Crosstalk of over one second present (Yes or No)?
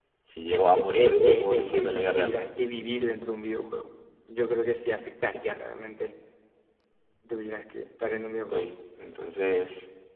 Yes